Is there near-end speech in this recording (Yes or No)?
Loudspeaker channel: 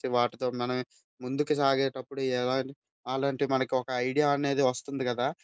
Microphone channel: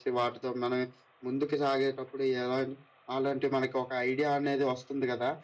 No